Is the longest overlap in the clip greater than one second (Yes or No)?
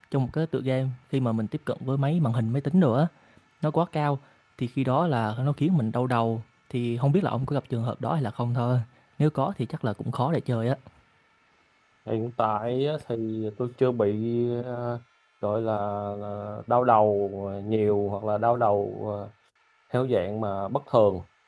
No